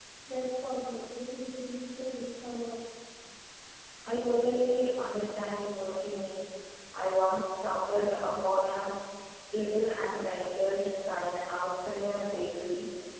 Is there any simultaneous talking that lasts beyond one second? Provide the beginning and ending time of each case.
none

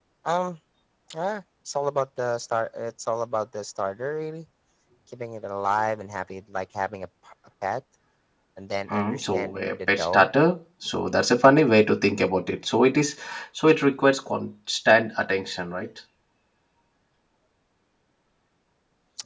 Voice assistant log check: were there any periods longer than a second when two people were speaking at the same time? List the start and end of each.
8.9-10.3

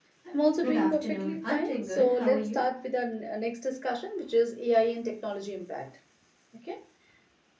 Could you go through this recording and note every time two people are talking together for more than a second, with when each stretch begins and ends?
0.6-2.6

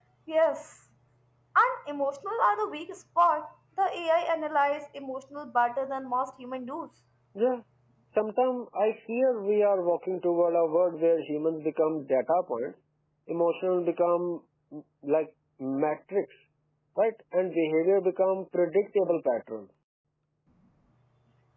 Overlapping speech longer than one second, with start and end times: none

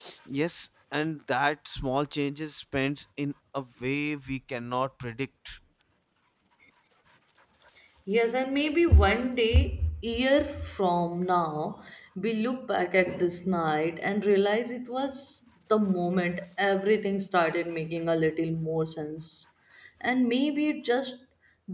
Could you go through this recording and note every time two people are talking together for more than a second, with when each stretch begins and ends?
none

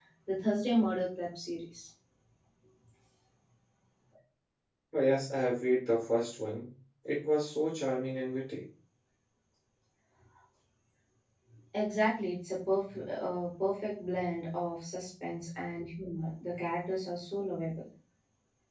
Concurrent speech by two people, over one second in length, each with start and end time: none

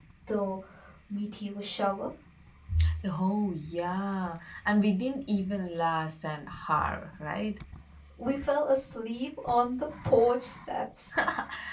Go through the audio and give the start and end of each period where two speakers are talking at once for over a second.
none

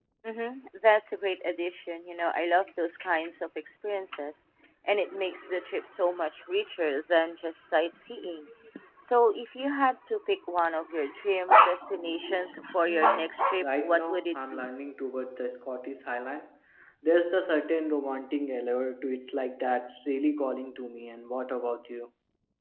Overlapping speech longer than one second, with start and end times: 12.8-14.6

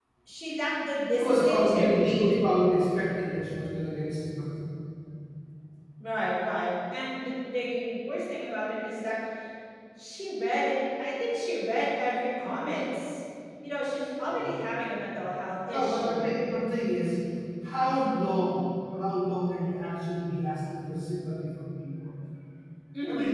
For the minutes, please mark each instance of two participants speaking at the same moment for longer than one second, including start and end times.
1.1-2.3

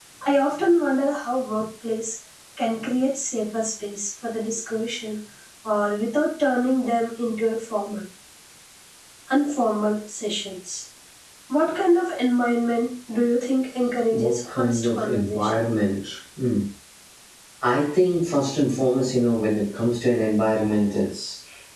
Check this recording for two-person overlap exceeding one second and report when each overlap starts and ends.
14.1-15.5

